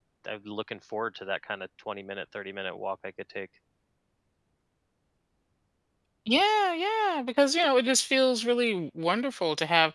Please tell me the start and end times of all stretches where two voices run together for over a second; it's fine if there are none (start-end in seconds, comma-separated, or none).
none